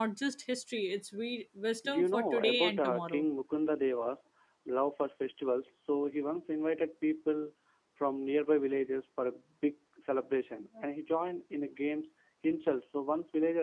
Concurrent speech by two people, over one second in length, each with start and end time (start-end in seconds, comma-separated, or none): 1.9-3.2